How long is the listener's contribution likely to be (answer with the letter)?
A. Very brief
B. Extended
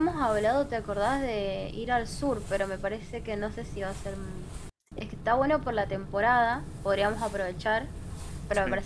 A